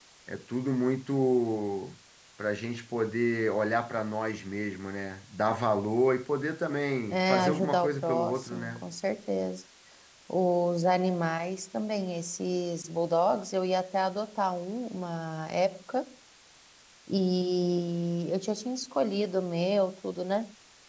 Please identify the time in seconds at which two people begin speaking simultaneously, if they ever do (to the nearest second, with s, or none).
7 s